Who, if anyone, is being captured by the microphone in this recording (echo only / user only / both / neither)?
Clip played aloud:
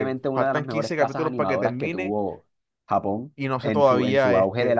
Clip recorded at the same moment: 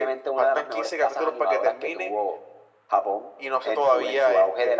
echo only